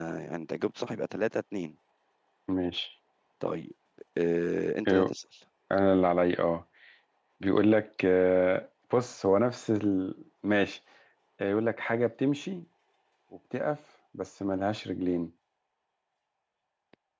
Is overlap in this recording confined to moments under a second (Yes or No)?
Yes